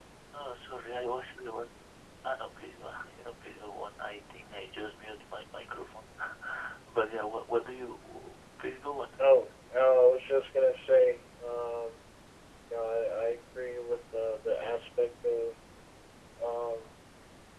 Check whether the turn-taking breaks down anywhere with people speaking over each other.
No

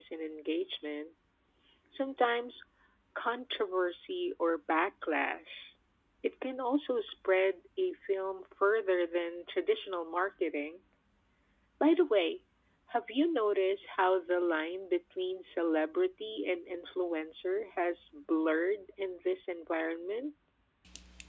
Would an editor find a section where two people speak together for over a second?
No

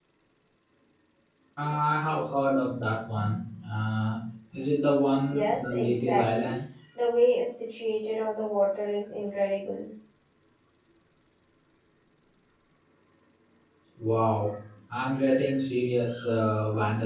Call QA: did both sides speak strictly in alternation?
No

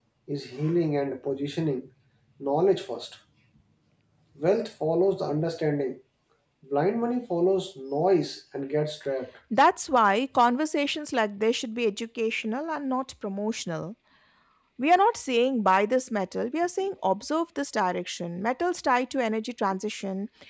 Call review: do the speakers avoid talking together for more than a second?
Yes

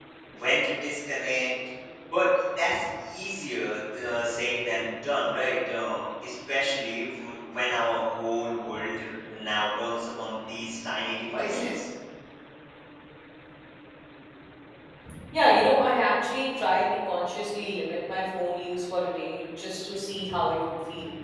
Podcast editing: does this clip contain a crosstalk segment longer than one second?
No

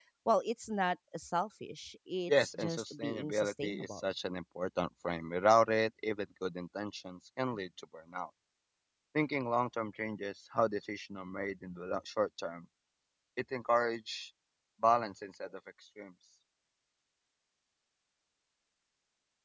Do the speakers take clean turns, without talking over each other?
No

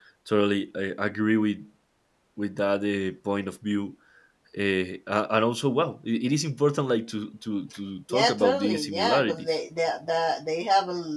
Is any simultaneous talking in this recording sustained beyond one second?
Yes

